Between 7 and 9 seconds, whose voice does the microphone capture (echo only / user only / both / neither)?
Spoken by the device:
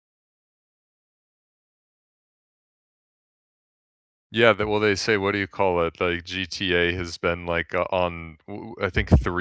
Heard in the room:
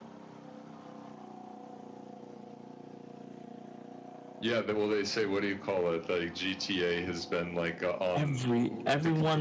both